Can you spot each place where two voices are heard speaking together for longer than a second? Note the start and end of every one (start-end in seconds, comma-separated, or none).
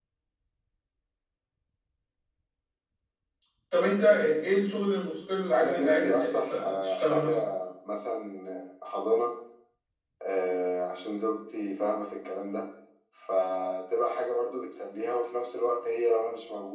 5.5-7.3